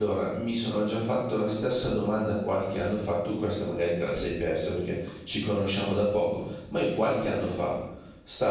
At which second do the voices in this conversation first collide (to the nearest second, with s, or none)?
none